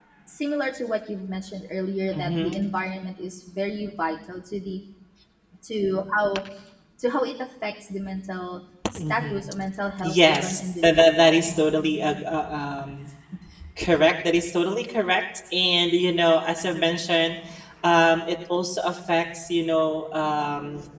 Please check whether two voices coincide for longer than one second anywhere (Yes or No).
Yes